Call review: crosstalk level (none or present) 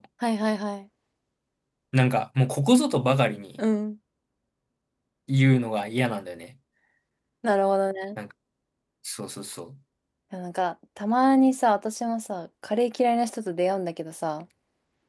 none